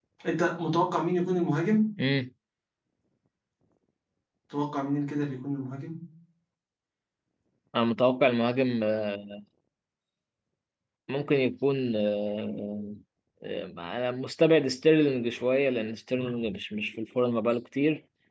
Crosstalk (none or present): none